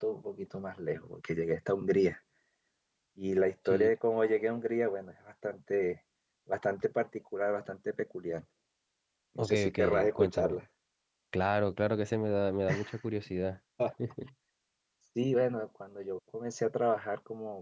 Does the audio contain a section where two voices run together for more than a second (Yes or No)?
Yes